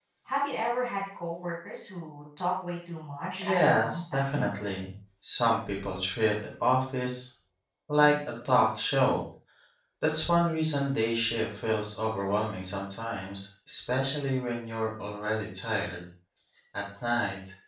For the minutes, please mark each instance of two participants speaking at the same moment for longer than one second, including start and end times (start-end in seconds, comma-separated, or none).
3.4-4.6